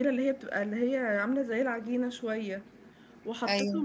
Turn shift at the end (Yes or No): No